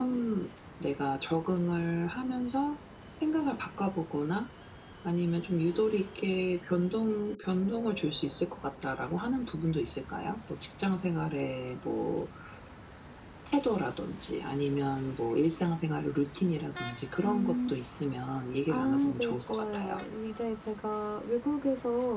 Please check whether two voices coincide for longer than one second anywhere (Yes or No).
Yes